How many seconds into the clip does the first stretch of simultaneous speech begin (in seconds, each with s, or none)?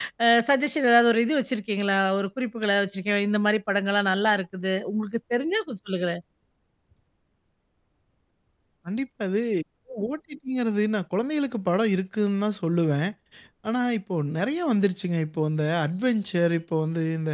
none